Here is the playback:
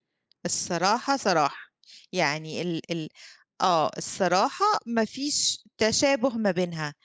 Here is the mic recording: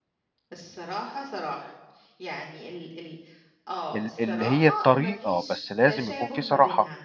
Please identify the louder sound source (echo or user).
user